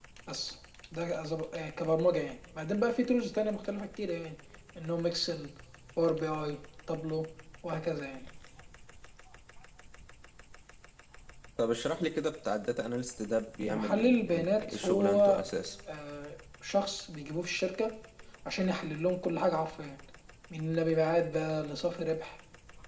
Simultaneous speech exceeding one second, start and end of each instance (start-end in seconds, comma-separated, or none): 13.7-15.4